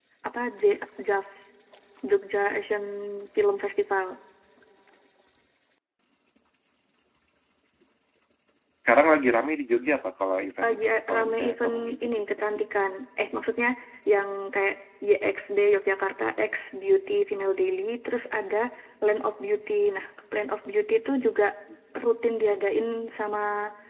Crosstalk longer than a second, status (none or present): present